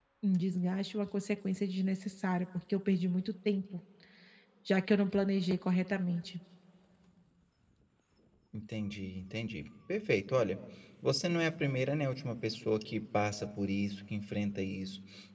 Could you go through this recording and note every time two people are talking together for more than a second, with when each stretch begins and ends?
none

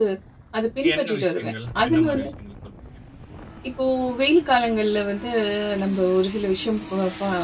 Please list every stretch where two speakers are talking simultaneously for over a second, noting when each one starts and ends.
0.9-2.3

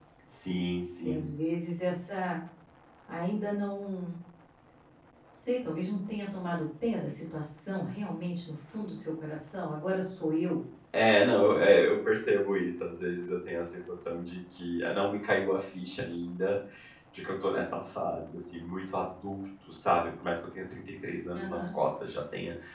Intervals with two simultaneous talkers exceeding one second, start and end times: none

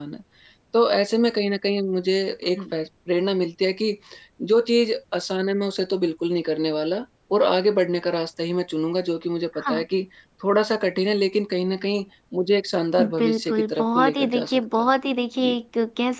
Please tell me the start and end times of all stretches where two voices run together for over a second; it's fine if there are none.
13.2-14.9

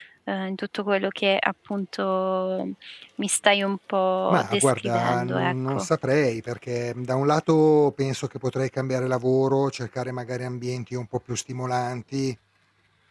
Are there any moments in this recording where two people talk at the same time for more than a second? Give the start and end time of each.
4.3-5.9

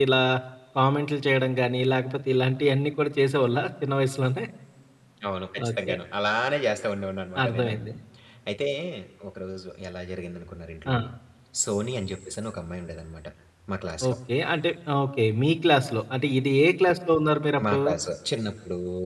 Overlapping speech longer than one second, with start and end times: none

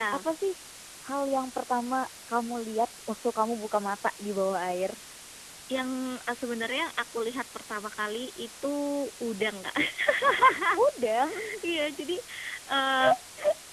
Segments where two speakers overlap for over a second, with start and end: none

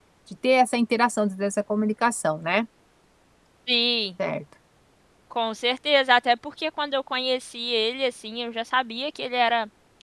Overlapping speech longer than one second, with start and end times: none

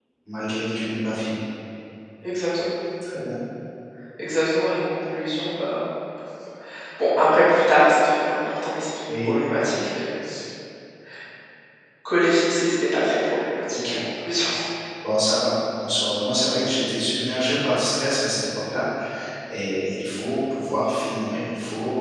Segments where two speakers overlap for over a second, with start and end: none

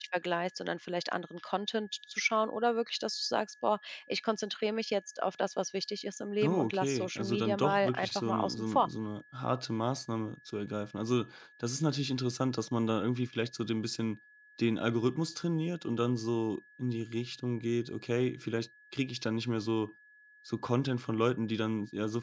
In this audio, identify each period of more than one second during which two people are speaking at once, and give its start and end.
6.4-8.9

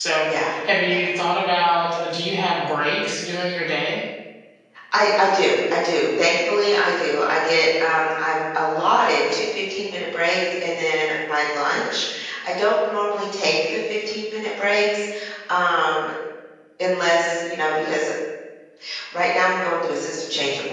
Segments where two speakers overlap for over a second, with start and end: none

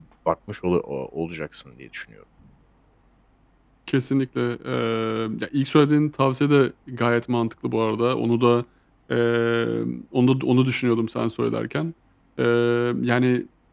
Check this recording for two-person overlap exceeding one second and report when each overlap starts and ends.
none

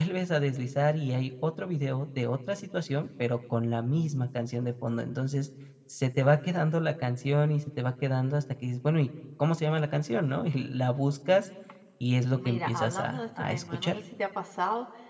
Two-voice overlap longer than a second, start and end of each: 12.3-14.0

